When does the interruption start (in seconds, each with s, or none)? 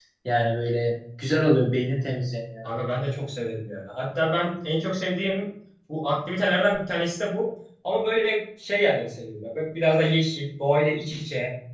none